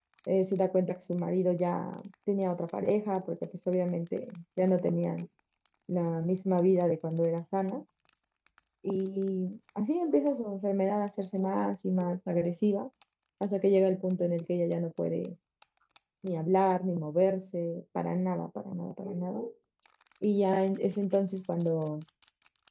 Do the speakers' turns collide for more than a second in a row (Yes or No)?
No